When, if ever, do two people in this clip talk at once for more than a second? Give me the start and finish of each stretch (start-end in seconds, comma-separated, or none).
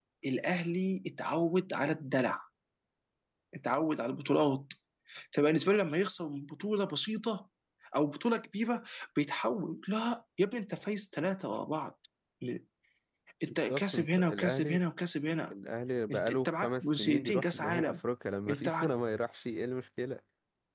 13.5-14.8, 16.1-18.0